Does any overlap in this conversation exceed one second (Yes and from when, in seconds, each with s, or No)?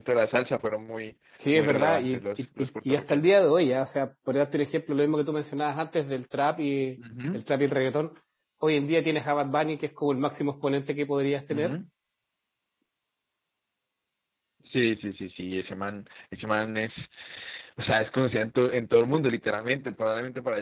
Yes, from 1.5 s